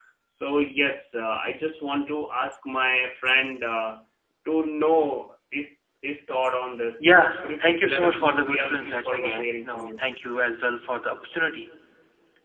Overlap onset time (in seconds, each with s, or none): 7.0 s